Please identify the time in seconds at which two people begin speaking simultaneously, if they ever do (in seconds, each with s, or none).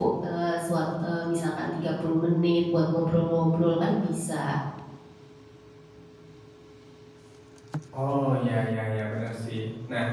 none